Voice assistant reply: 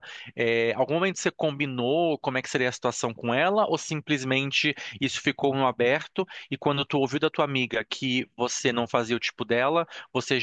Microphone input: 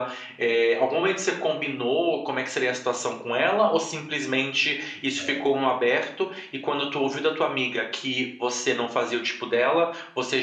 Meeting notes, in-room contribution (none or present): present